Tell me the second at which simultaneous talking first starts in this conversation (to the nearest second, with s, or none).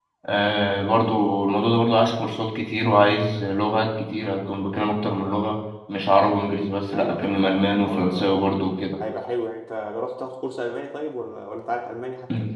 7 s